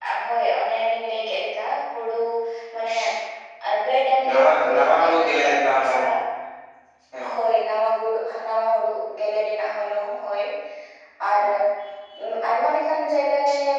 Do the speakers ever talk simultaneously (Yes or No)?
Yes